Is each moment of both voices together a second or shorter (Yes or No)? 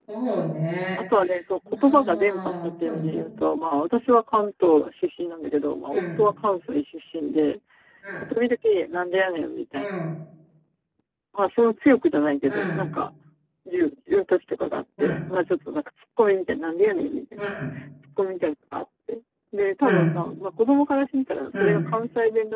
No